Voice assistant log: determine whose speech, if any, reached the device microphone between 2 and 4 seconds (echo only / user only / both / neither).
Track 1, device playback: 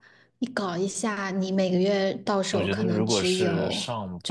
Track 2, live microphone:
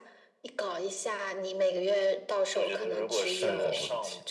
both